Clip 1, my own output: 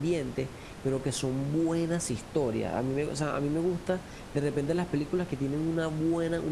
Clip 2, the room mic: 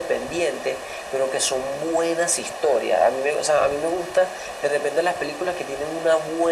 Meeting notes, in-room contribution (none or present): none